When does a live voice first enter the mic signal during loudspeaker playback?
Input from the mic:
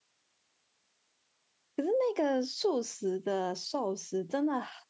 1.8 s

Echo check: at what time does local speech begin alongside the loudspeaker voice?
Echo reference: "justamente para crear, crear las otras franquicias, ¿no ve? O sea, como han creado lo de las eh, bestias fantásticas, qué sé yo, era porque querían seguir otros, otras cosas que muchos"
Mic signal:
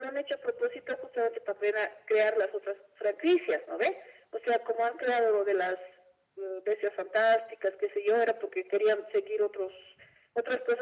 none

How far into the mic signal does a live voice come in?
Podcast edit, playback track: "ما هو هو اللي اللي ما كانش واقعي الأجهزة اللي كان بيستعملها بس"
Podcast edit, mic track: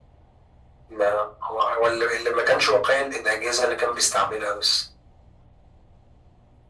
none

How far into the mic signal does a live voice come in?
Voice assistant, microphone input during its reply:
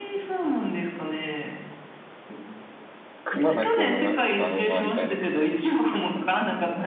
3.2 s

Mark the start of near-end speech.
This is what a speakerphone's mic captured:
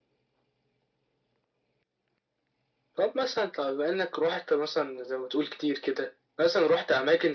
none

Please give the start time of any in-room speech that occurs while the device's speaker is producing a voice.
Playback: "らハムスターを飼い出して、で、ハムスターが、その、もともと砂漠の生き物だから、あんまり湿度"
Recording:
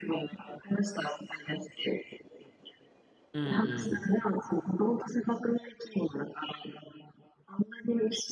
3.3 s

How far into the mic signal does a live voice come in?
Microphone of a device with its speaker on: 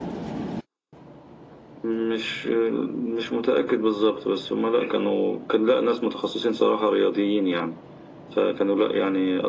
none

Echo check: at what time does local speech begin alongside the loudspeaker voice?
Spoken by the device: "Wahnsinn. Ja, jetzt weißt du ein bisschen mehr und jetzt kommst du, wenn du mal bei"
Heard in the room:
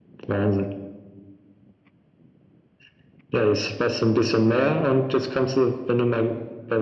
none

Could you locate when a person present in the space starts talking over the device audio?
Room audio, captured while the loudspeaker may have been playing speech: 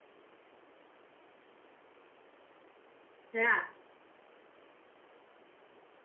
3.3 s

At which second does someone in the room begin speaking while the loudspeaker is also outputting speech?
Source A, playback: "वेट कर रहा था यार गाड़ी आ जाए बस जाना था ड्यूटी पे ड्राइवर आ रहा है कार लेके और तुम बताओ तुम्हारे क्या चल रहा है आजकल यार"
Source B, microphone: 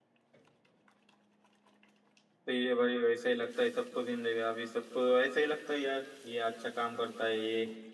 2.5 s

